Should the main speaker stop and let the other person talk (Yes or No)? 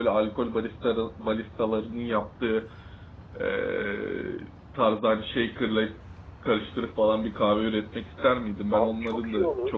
Yes